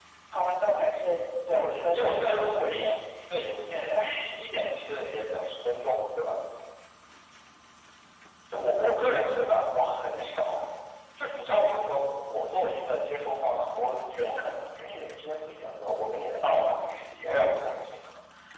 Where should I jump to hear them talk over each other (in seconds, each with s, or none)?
1.5 s